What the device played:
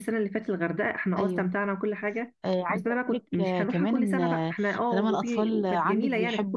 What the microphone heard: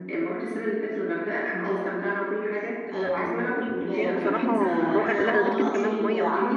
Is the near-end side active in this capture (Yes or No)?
Yes